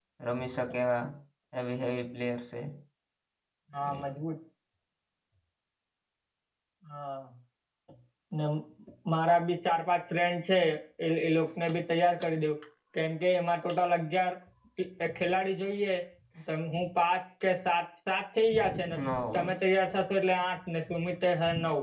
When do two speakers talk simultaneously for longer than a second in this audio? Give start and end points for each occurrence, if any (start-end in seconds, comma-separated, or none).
none